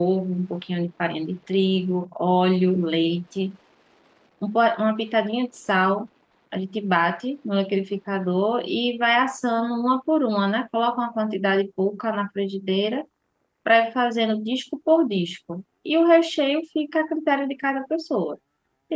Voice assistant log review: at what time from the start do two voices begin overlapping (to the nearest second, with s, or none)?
none